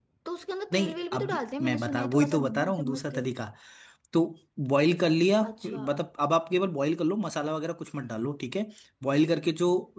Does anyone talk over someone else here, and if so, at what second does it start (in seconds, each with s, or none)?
0.7 s